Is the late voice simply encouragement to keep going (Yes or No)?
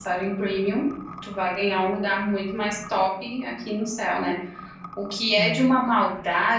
Yes